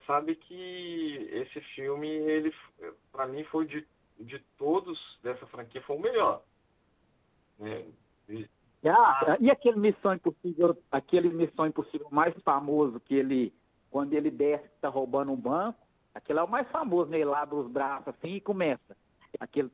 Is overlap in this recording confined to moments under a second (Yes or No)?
Yes